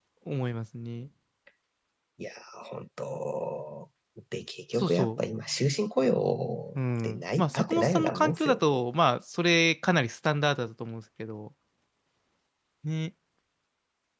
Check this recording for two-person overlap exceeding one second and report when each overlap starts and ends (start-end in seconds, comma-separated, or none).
6.8-8.8